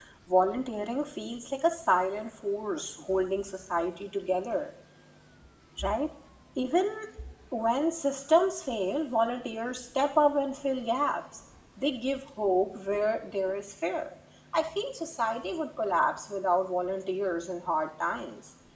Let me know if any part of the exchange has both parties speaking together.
No

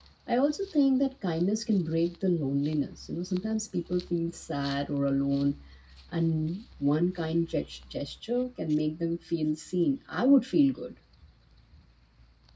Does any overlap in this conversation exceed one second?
No

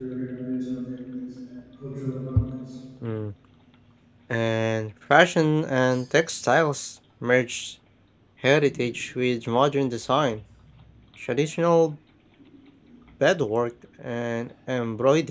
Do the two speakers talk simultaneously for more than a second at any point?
No

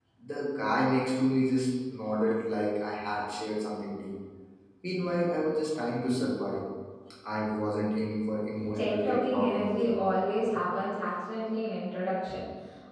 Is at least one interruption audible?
Yes, from 8.6 s

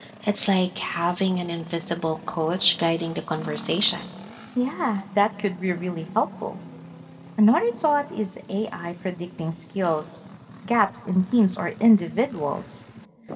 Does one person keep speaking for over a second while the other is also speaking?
No

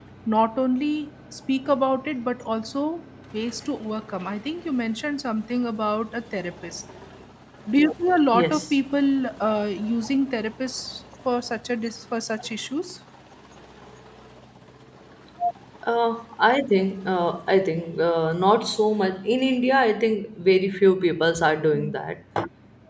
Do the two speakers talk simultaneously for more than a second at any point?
No

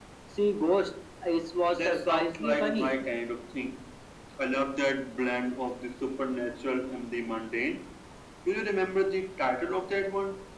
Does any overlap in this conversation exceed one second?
Yes, from 1.7 s

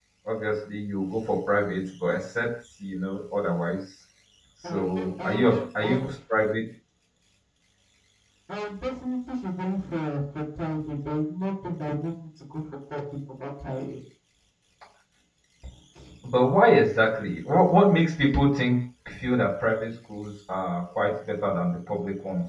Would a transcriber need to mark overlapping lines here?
Yes, from 4.7 s

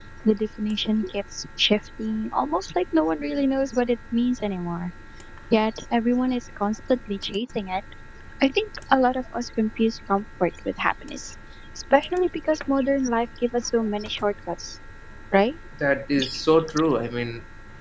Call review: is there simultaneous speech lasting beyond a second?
No

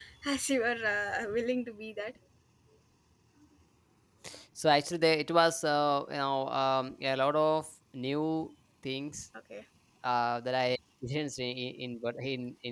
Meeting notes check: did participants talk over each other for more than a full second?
No

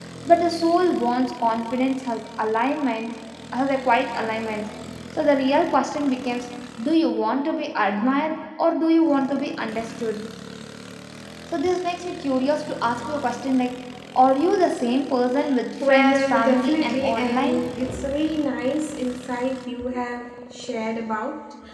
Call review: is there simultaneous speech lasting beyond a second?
Yes, from 15.8 s

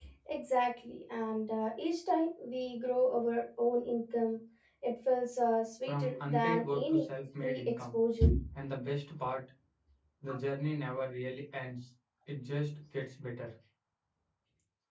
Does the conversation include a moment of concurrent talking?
Yes, from 5.9 s

